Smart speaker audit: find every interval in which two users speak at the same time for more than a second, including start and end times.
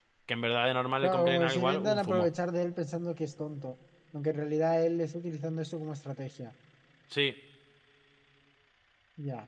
1.0-2.3

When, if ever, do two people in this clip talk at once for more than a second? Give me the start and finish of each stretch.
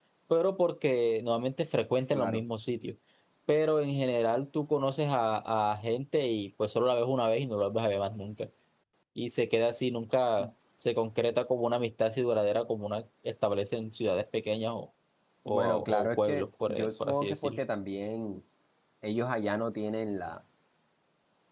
15.5-17.6

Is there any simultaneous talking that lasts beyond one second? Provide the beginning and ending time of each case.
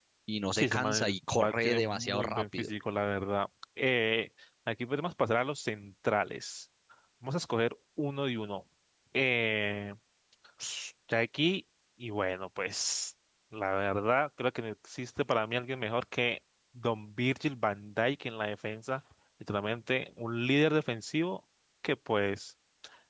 0.6-2.7

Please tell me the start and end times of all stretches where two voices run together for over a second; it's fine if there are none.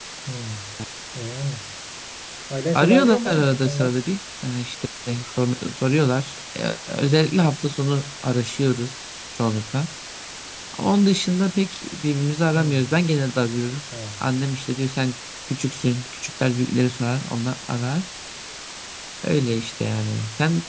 2.8-4.0

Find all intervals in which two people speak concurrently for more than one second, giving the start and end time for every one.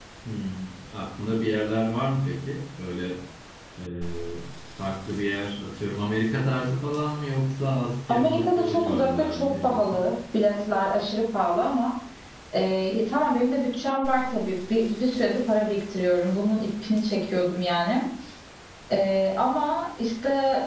8.1-10.0

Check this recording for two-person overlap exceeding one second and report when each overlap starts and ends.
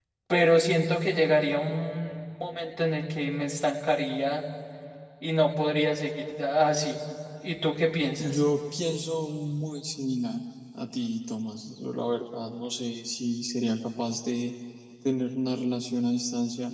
none

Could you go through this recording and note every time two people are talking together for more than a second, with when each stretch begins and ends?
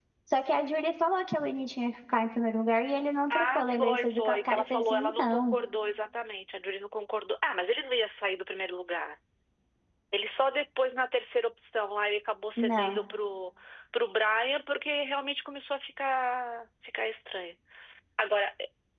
3.3-5.6

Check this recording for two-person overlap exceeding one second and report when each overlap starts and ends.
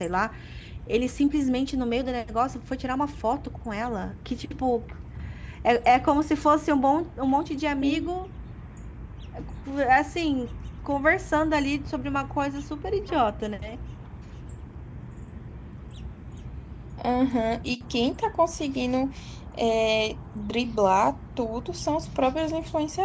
none

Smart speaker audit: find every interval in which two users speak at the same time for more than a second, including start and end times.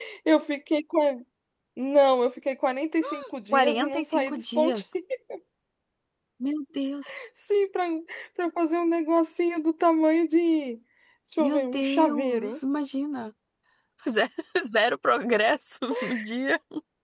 3.5-4.8, 11.4-12.6

